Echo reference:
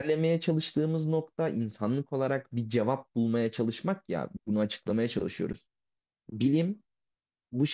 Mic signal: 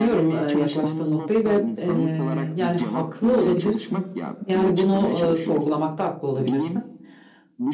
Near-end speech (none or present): present